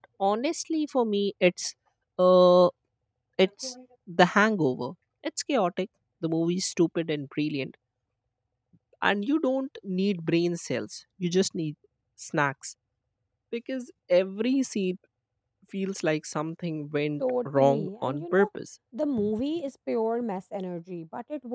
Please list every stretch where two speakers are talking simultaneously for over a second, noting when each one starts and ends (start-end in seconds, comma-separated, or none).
17.2-18.5